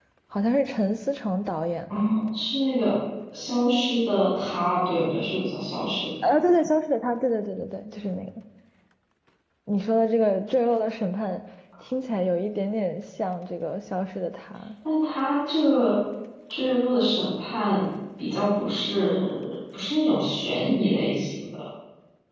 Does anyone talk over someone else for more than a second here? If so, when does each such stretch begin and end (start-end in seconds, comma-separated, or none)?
none